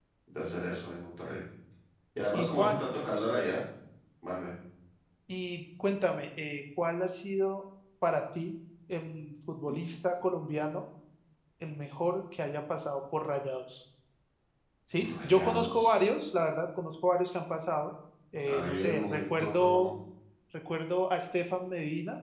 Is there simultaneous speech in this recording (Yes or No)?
Yes